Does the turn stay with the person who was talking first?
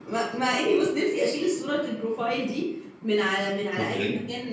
Yes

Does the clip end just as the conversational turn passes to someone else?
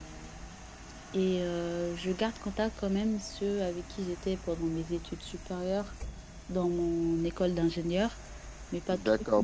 Yes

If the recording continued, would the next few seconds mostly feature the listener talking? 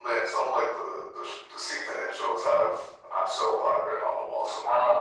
Yes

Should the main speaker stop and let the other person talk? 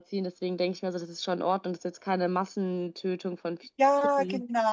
Yes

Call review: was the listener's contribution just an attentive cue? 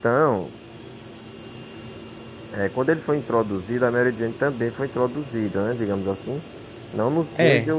Yes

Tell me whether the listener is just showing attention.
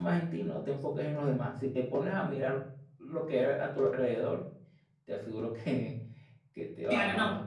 No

